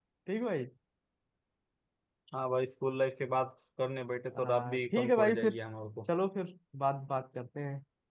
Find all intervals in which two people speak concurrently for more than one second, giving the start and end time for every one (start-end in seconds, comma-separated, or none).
4.4-5.6